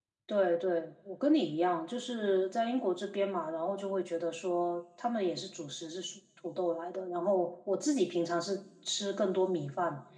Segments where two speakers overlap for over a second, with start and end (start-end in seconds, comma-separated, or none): none